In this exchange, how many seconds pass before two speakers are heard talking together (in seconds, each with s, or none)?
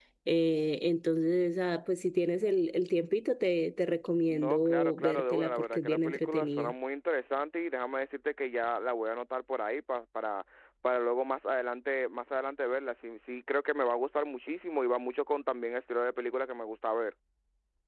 4.3 s